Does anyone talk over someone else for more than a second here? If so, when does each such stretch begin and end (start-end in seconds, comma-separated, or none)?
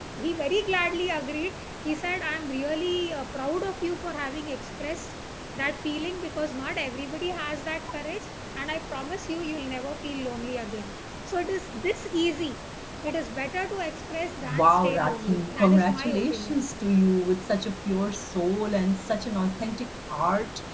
14.5-16.6